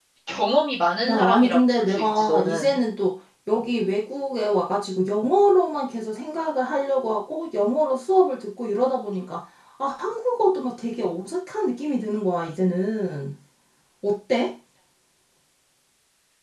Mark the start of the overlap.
1.1 s

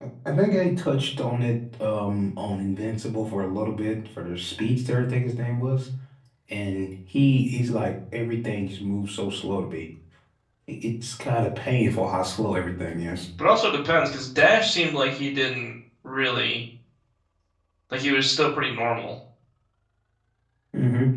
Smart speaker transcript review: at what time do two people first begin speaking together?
none

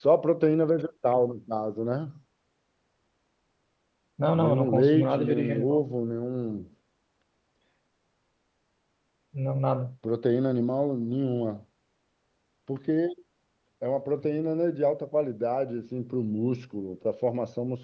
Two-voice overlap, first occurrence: 4.3 s

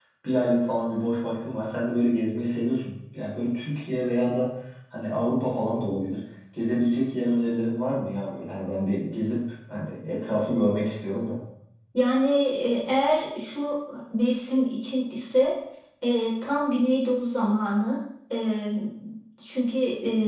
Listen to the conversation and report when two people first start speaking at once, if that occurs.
none

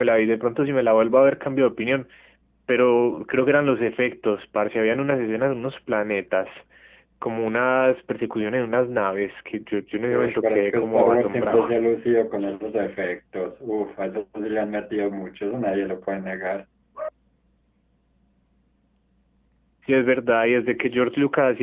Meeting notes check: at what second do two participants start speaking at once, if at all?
10.1 s

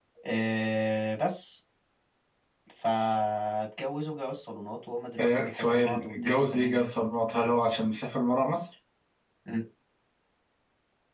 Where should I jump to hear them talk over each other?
5.2 s

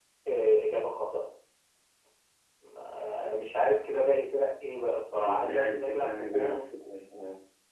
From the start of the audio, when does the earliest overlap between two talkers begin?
5.2 s

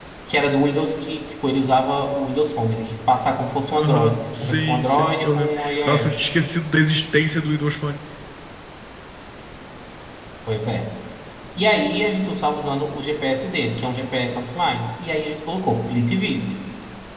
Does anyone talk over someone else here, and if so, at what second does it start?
3.7 s

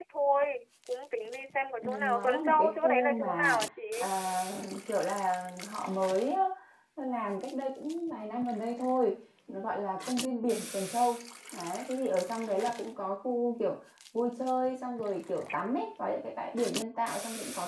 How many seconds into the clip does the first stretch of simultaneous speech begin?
1.8 s

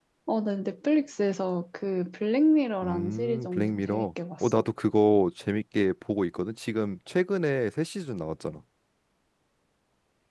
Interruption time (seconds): 2.8 s

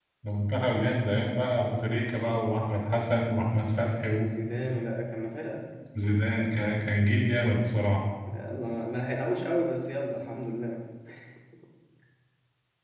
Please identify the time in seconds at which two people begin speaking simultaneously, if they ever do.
none

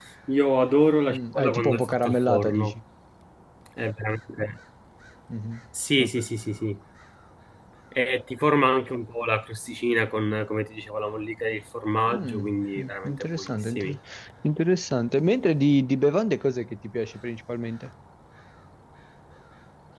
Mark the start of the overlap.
1.1 s

